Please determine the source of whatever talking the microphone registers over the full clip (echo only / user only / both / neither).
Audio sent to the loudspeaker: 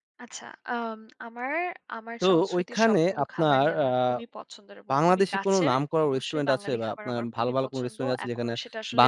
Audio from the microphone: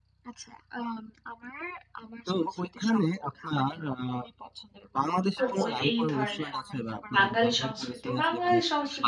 both